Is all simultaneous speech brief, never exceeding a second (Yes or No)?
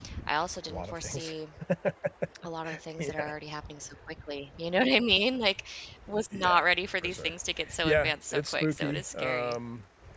No